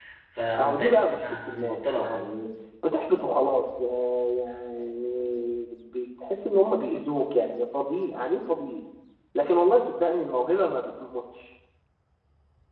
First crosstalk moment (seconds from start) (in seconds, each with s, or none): 0.6 s